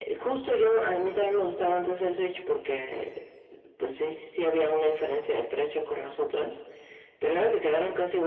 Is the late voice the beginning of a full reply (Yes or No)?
No